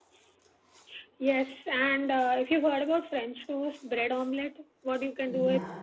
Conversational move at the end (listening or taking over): listening